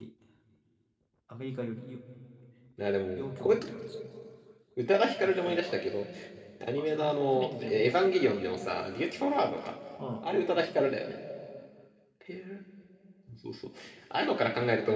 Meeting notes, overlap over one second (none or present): present